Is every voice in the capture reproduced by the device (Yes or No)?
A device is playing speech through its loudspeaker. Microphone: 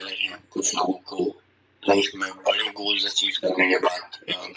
Yes